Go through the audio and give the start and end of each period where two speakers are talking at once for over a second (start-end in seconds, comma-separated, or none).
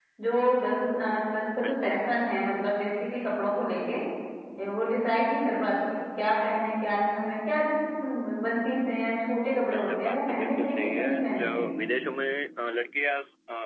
9.7-11.8